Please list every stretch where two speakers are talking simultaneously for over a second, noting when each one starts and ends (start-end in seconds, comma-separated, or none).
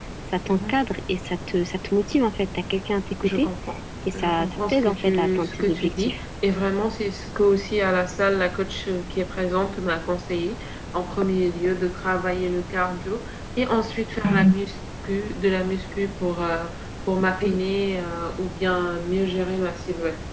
4.1-6.2